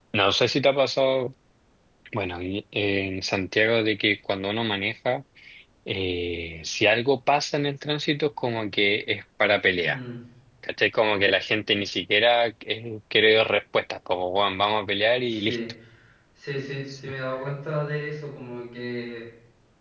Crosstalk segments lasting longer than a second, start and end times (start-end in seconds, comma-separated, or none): none